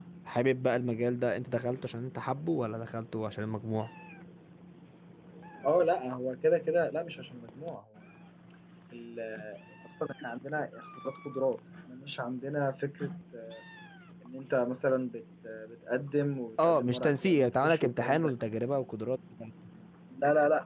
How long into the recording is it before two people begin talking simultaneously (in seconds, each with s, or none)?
16.6 s